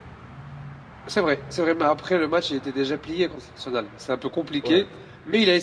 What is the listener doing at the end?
listening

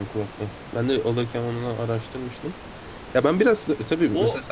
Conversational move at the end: listening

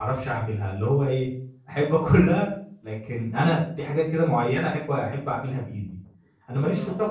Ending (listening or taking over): listening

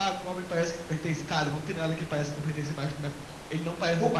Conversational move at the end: taking over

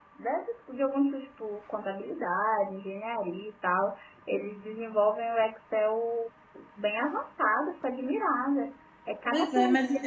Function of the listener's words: taking over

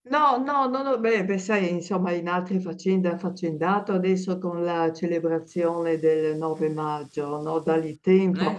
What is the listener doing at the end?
listening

